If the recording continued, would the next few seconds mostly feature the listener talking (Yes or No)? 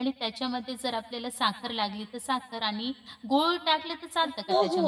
Yes